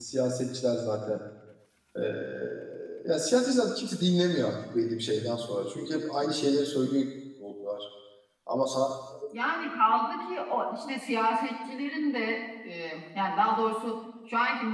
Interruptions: none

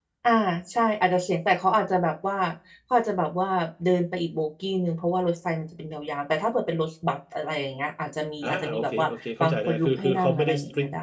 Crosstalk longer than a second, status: present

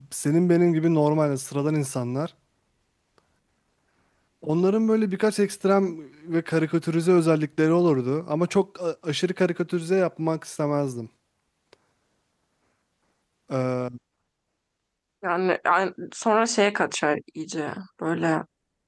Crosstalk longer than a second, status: none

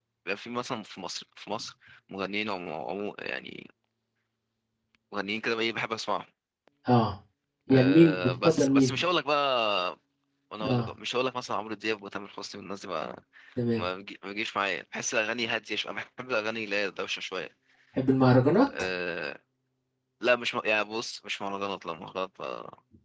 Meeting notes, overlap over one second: present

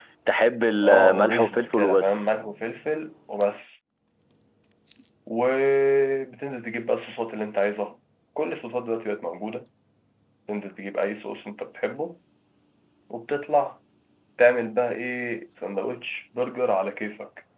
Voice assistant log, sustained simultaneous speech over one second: present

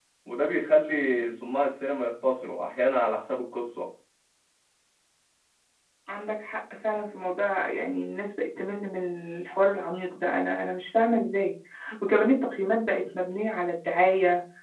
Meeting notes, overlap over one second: none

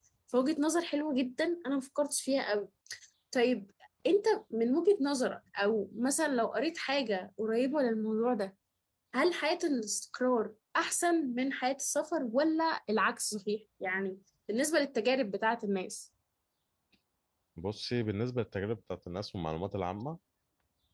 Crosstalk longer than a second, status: none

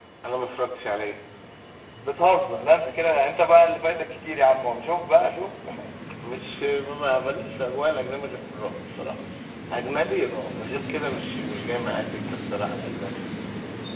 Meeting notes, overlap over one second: none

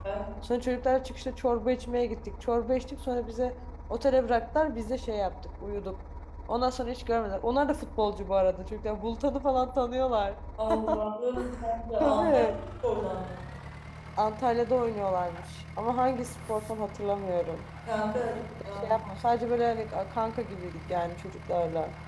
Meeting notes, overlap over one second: none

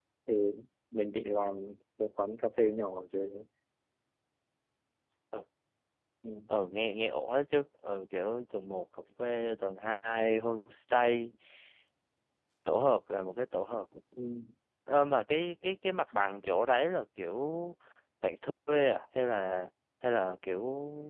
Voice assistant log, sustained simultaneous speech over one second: none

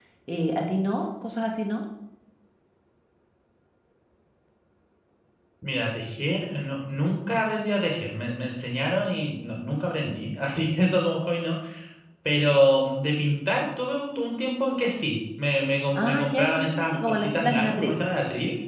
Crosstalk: present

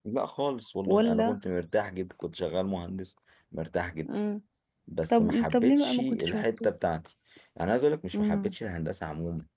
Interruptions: present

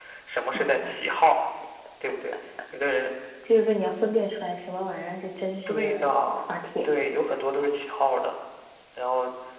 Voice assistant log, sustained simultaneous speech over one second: none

